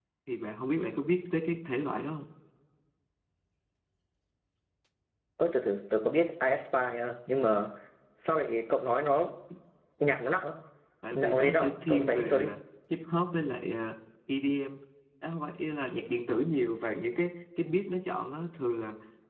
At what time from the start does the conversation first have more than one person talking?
11.1 s

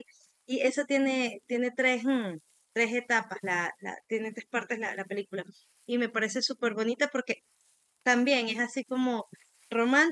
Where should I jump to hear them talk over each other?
none

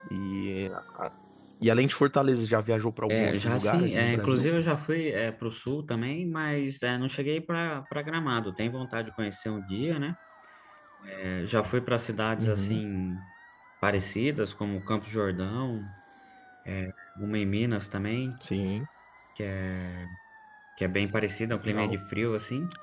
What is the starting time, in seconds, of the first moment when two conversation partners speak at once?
3.1 s

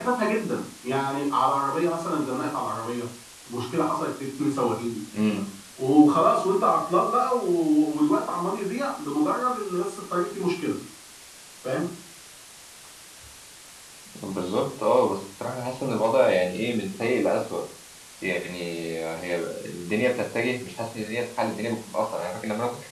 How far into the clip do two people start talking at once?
none

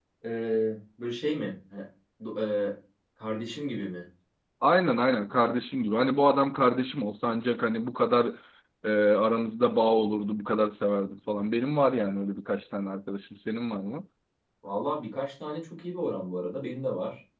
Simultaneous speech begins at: none

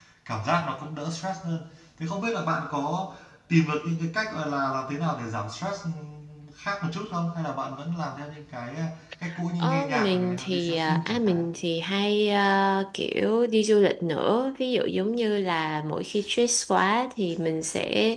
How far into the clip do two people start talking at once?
9.6 s

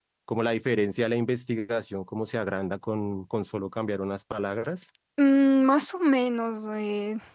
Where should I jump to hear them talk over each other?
none

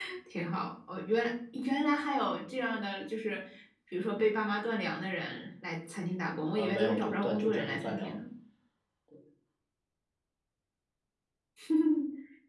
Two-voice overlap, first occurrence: 6.6 s

